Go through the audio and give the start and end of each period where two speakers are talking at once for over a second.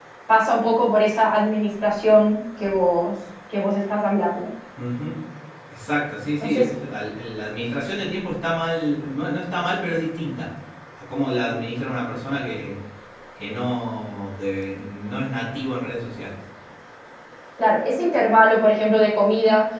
none

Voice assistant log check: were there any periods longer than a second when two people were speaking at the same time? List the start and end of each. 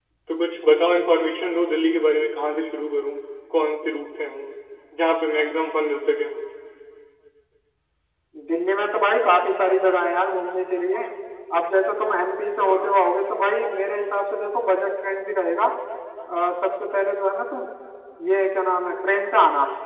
none

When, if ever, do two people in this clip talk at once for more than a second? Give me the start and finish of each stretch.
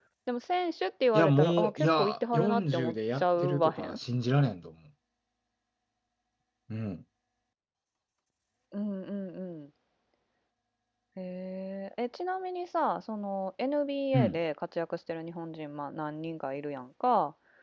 1.1-4.0

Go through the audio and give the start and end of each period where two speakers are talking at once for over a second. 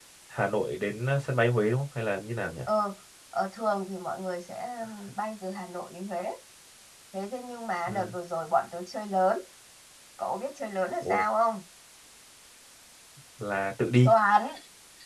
none

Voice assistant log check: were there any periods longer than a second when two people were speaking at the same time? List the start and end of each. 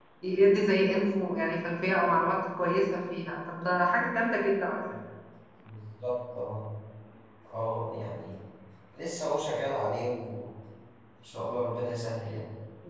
none

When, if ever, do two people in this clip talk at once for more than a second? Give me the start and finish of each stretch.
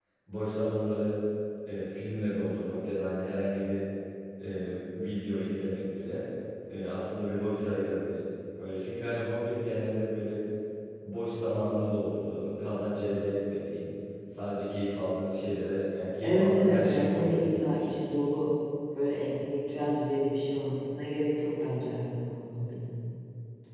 16.2-17.8

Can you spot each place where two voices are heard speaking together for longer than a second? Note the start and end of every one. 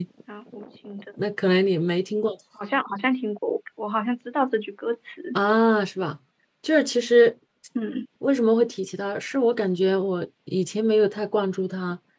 none

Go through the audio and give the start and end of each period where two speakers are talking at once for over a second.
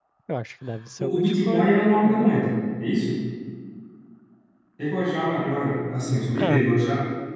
1.0-2.3

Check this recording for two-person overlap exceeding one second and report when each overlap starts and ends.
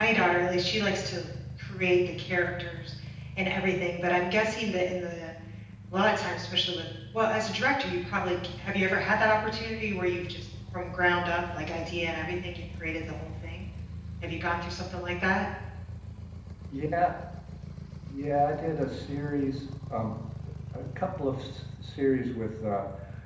none

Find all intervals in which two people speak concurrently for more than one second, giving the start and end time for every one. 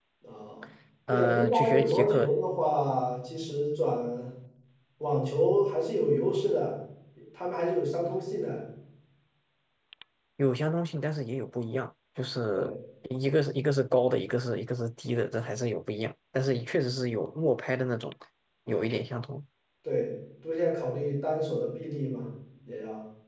1.1-2.3

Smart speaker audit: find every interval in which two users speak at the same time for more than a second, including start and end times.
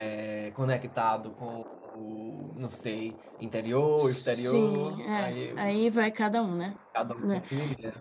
4.0-5.9

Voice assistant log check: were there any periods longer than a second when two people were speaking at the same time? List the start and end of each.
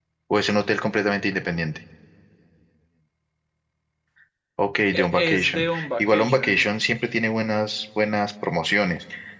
4.9-6.7

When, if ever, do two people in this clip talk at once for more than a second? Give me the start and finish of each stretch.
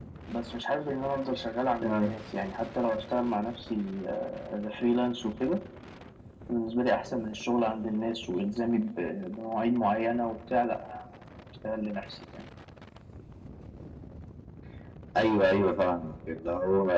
none

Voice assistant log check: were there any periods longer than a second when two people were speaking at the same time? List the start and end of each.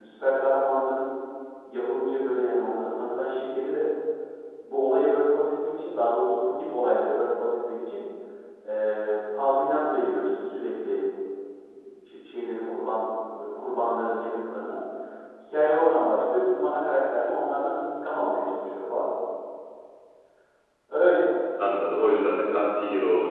none

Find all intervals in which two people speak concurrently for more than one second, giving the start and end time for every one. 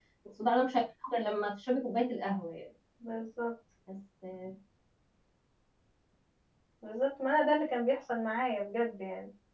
none

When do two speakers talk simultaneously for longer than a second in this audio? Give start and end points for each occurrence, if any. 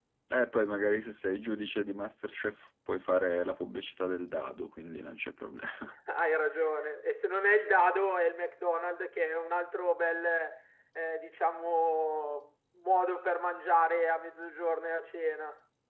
none

